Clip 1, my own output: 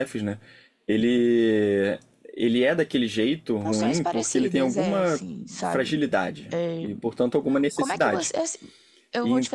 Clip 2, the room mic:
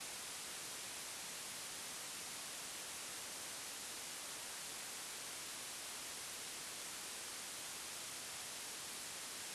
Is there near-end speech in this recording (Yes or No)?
No